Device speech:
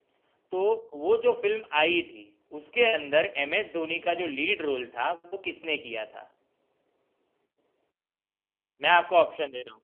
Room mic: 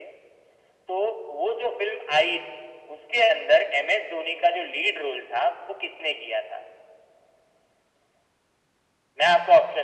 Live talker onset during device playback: none

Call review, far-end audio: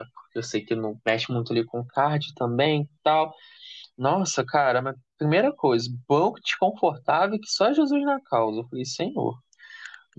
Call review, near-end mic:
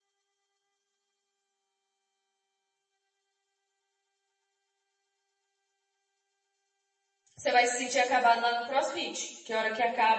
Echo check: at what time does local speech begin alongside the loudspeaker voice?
7.4 s

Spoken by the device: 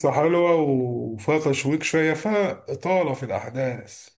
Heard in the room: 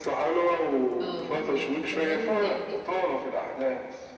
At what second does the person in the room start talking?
1.0 s

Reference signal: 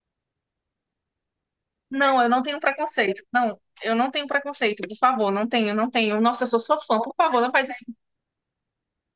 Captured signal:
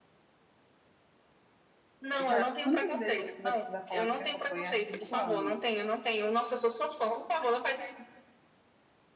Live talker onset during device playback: 2.2 s

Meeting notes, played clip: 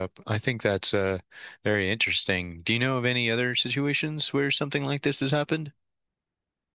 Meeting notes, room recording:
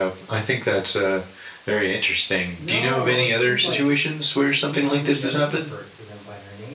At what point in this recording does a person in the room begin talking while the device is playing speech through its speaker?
2.6 s

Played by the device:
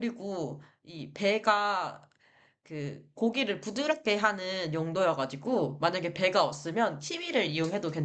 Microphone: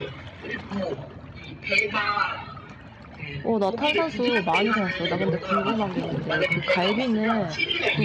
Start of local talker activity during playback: 3.4 s

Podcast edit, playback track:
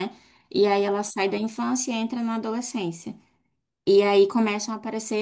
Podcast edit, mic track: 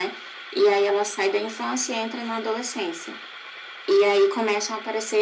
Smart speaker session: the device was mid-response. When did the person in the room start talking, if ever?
none

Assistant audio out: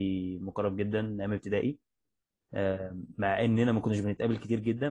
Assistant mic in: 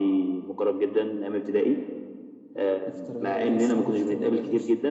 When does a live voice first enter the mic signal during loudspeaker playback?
2.8 s

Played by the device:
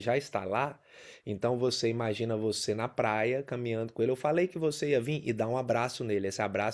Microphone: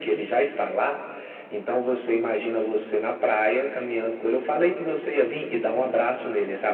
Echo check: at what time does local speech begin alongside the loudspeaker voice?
none

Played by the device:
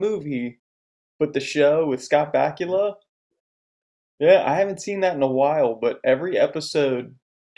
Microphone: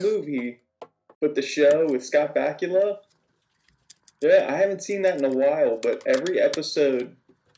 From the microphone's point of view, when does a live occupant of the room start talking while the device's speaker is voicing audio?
none

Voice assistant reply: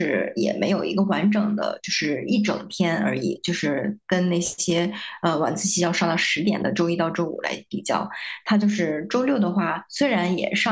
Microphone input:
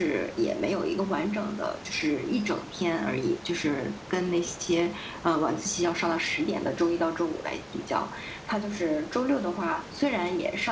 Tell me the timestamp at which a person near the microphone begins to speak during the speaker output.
none

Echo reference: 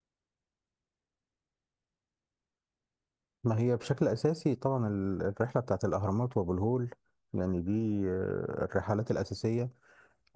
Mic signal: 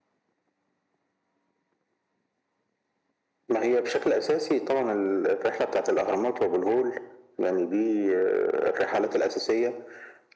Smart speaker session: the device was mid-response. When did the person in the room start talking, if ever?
none

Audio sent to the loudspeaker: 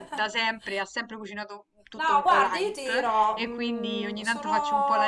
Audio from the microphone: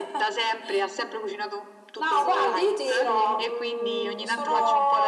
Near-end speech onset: 2.1 s

